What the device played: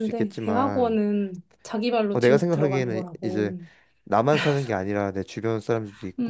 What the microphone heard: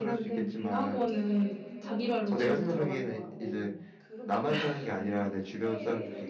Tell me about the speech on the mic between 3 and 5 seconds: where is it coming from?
both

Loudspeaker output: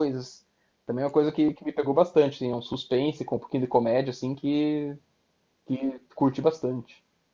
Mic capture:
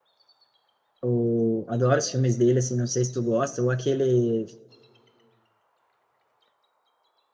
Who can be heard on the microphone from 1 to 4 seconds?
user only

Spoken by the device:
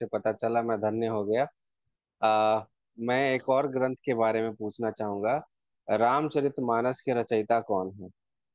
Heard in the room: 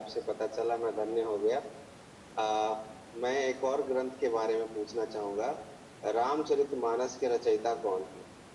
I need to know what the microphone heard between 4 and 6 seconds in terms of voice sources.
echo only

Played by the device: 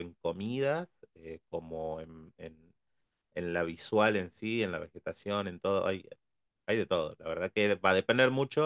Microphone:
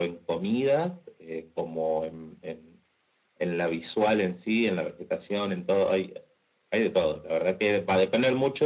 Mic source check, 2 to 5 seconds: echo only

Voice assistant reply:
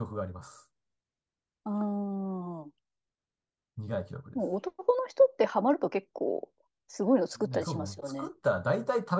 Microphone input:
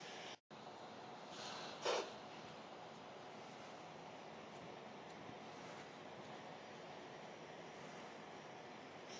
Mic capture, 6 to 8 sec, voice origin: neither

